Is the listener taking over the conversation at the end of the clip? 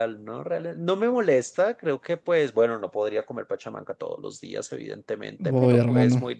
No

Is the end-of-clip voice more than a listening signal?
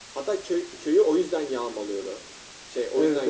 Yes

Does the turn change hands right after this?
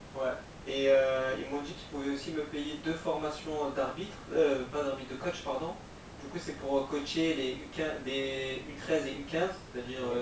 No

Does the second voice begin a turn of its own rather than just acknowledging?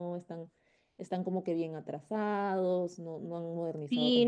Yes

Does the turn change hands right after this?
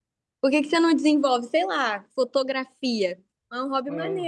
Yes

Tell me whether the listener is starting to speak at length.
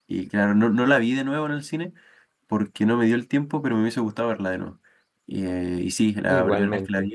No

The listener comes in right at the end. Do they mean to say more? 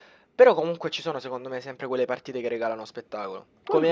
No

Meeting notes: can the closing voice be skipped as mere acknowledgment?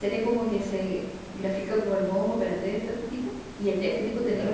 Yes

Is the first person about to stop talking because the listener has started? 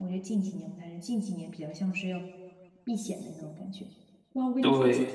No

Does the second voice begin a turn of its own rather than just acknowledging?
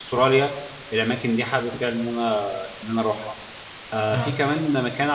No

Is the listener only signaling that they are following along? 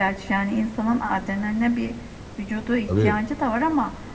Yes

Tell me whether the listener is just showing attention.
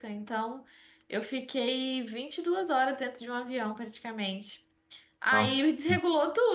Yes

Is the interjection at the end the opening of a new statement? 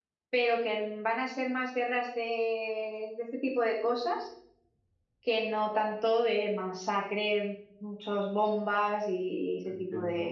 Yes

